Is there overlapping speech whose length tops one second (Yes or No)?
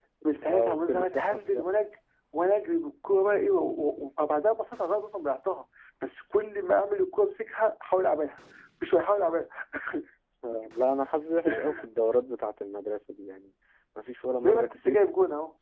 Yes